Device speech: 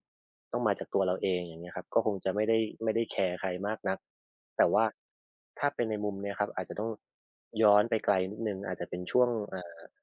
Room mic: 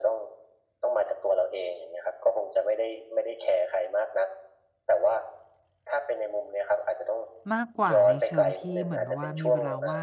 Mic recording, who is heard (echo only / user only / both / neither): both